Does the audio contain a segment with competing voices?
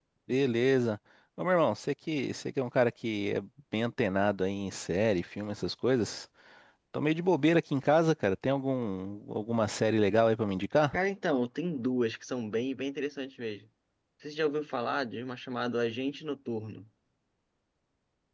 No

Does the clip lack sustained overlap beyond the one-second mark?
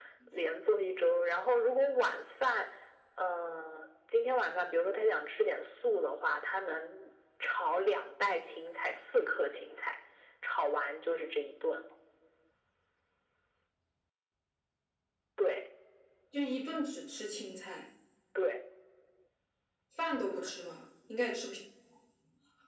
Yes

